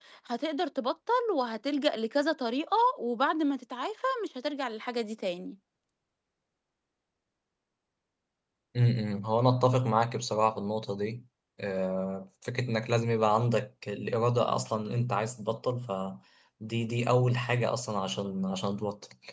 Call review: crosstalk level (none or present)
none